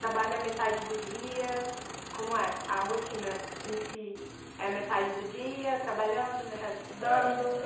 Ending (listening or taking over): taking over